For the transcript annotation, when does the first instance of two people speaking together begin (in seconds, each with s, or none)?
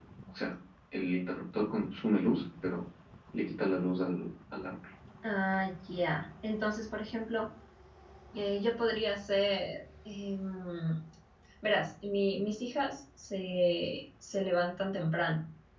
none